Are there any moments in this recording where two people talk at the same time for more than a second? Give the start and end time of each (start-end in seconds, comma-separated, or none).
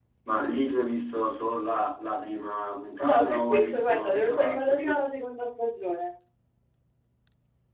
3.1-5.0